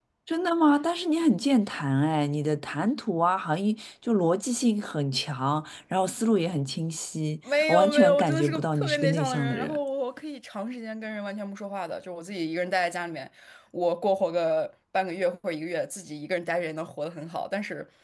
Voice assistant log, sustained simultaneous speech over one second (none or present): present